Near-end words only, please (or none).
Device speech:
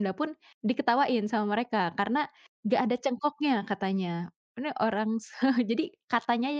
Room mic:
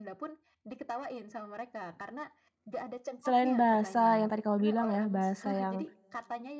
selain bahasa yang tadi kamu bilang ya, bahasa yang